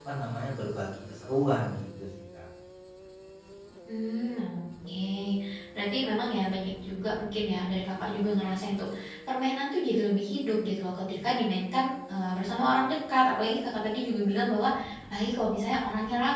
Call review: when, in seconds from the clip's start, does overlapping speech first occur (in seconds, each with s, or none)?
none